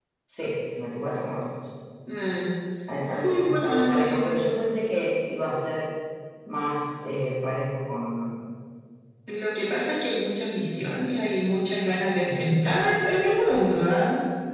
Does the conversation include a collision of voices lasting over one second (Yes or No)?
Yes